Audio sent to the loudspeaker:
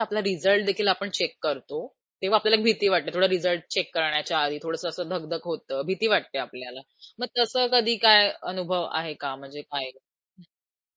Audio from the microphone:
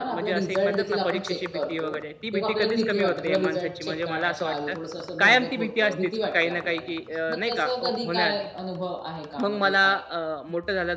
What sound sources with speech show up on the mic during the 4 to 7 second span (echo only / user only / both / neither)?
both